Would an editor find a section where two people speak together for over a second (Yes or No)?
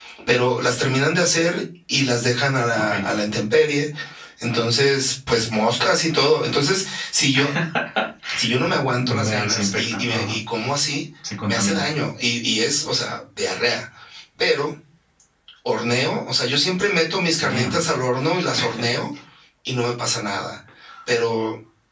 Yes